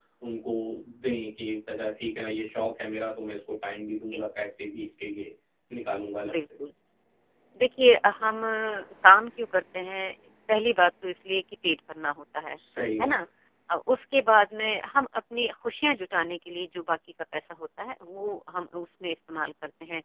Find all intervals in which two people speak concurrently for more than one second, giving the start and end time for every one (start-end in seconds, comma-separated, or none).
none